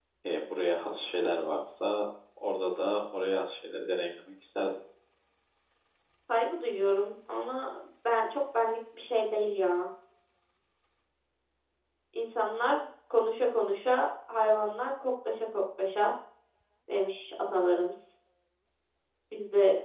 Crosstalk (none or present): none